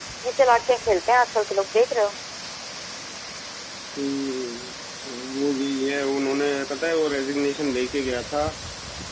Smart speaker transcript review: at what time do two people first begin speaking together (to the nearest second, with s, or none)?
none